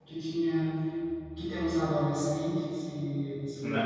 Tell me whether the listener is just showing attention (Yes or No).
No